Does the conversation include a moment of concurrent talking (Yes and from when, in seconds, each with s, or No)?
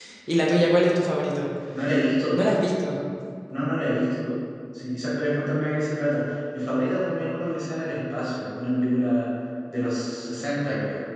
No